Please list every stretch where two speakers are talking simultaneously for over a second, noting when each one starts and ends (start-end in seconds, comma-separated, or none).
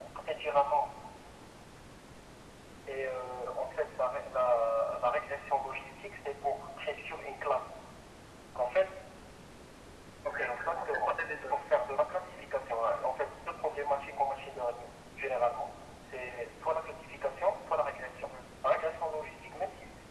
10.4-11.7